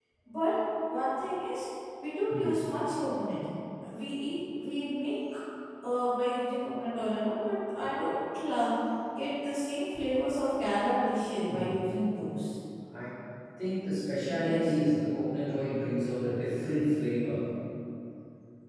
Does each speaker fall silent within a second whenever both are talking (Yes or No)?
Yes